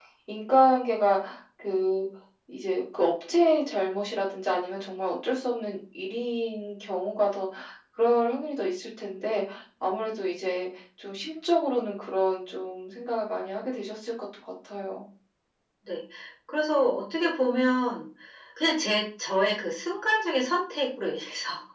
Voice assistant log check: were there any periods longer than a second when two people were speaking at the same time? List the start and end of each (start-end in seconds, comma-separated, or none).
none